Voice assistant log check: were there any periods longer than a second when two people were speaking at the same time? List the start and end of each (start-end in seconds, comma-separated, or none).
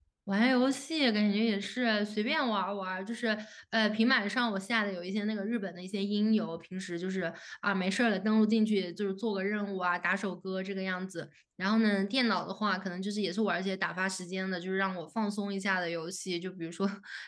none